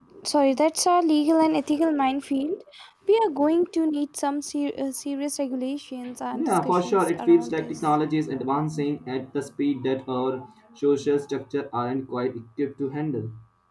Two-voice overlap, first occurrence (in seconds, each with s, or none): 6.3 s